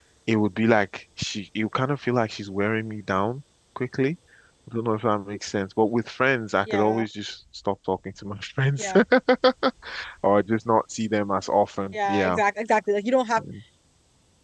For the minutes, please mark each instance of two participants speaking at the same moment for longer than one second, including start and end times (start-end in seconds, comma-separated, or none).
none